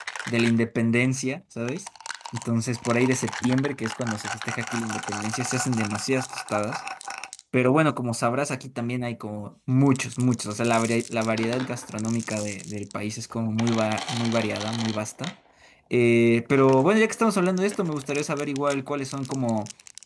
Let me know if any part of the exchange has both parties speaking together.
No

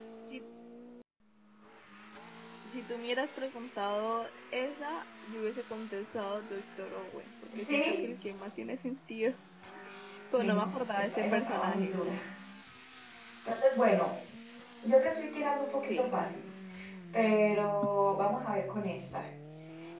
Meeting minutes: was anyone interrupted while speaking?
Yes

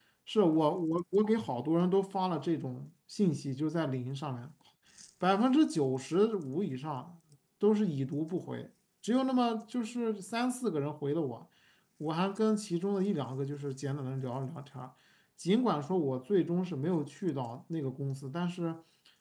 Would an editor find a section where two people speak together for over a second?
No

